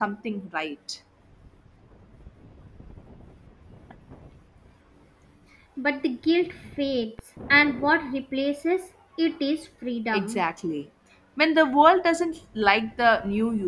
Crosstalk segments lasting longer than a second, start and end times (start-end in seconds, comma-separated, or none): none